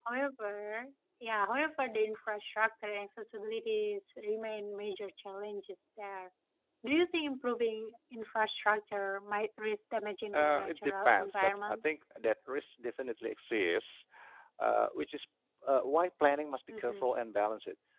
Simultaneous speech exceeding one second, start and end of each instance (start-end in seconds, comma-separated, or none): 10.3-11.8